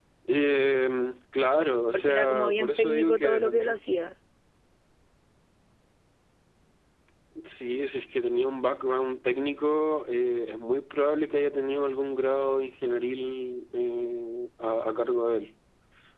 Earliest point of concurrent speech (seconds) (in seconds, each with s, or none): 1.9 s